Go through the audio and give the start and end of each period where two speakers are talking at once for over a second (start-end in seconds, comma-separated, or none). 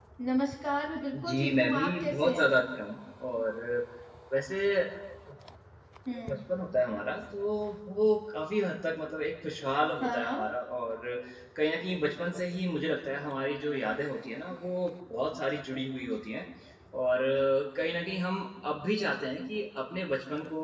1.1-2.5